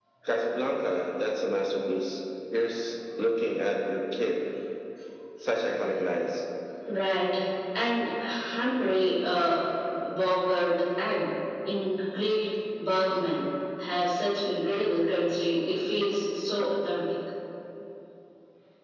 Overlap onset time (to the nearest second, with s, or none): none